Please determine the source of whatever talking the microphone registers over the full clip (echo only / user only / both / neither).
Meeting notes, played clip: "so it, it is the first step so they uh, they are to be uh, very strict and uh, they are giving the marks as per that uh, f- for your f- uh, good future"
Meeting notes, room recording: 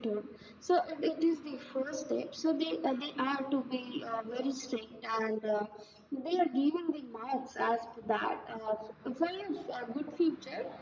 echo only